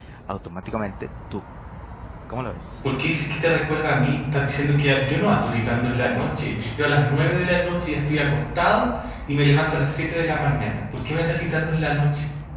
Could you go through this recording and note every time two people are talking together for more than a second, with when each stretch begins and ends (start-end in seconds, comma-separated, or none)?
none